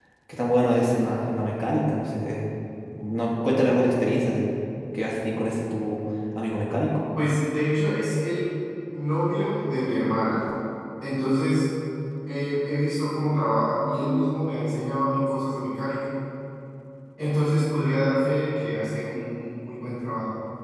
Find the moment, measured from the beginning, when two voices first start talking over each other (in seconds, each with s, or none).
none